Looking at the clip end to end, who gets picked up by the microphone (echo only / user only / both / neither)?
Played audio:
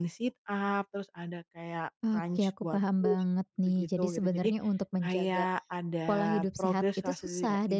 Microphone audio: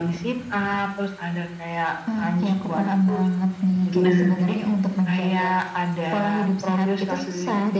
both